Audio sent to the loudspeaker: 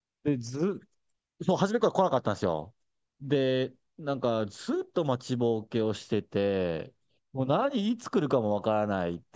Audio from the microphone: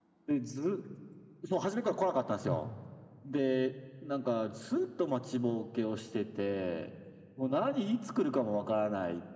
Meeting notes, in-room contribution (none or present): present